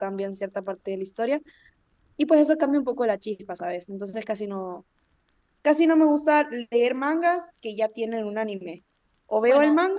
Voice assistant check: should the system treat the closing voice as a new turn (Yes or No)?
No